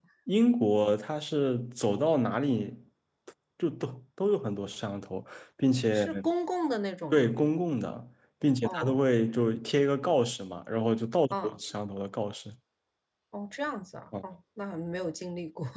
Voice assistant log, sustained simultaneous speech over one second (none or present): none